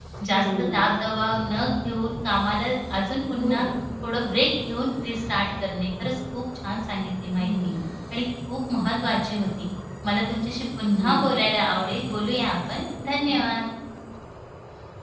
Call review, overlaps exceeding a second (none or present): none